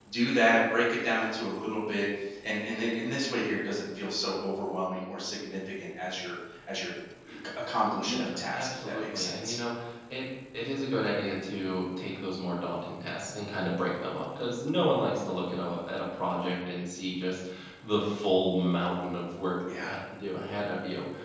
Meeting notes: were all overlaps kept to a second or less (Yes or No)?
No